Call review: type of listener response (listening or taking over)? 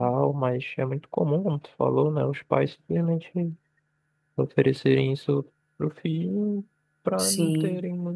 listening